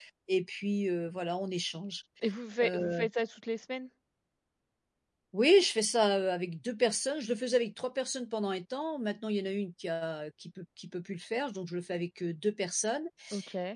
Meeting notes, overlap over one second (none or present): none